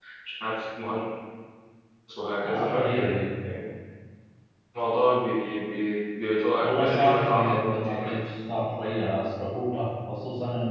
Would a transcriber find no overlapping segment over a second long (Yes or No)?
No